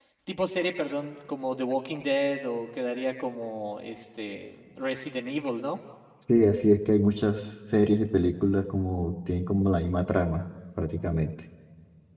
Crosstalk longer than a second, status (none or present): none